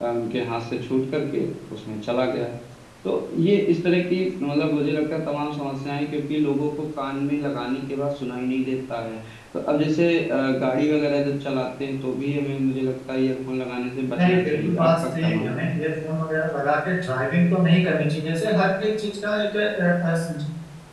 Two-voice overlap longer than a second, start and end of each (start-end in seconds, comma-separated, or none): 14.2-15.7